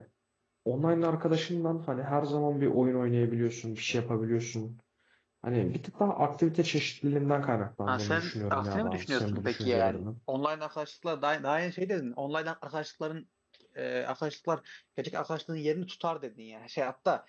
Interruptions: present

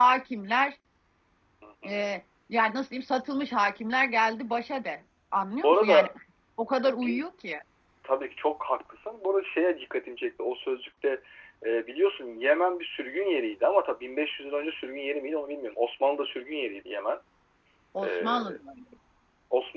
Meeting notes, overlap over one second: none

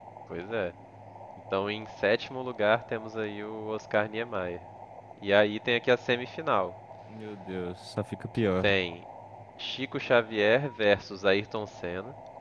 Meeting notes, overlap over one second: none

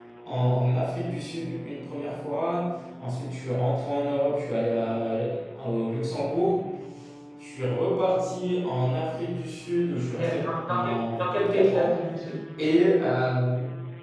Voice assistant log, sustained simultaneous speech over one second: present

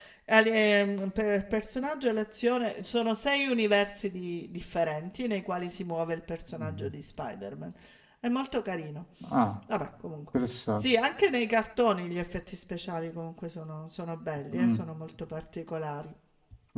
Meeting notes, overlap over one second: none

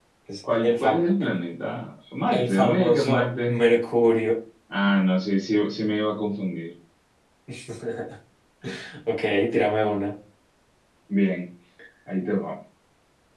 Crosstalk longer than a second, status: present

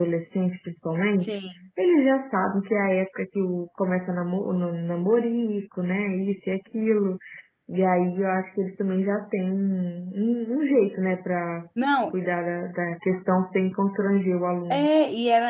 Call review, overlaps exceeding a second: none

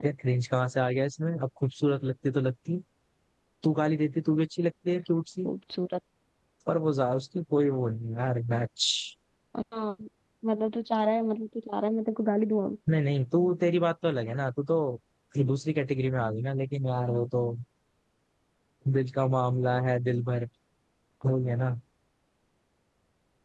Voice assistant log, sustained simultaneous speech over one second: none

